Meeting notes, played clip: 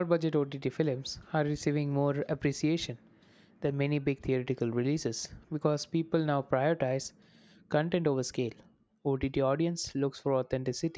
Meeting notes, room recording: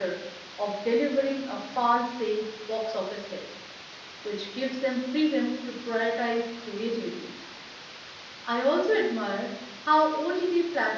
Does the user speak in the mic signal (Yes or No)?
Yes